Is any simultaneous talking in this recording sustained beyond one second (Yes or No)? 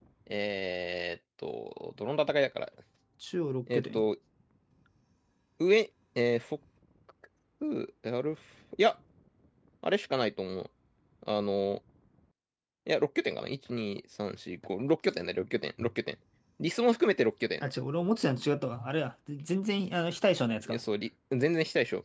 No